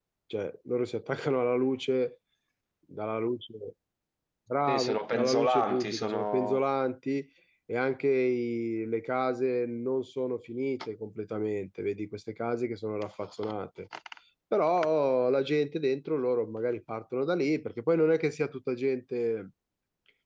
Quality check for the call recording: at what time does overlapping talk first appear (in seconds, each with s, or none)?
4.7 s